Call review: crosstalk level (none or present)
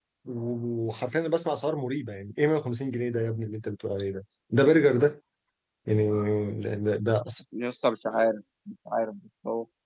none